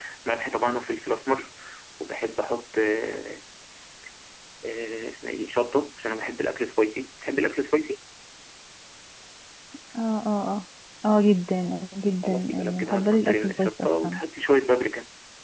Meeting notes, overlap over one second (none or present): present